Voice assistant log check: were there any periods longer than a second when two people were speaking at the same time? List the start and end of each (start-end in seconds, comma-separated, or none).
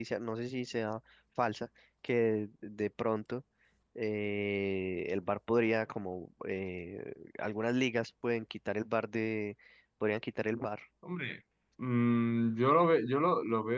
none